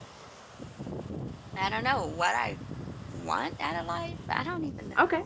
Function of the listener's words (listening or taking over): taking over